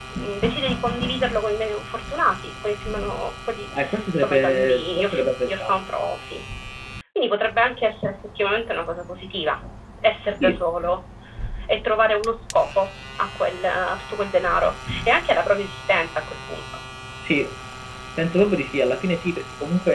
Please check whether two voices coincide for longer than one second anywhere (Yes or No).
Yes